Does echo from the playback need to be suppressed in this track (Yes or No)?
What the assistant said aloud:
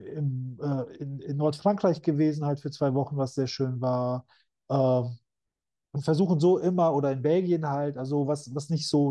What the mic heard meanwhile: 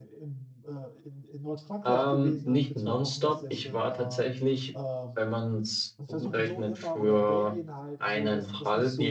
Yes